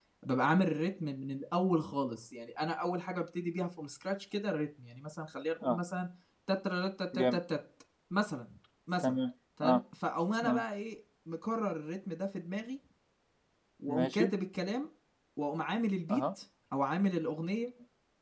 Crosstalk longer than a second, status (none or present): none